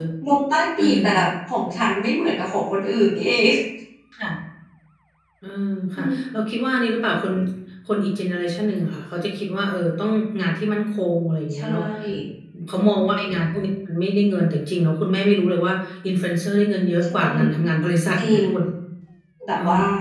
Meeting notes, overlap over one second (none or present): none